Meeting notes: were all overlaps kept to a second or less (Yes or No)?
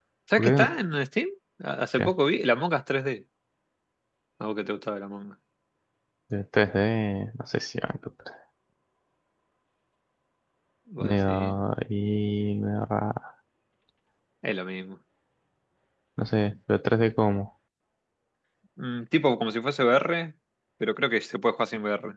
Yes